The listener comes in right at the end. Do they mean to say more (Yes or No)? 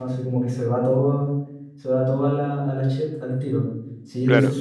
No